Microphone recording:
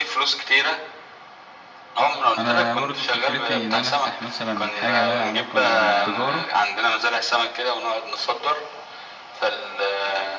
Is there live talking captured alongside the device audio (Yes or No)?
Yes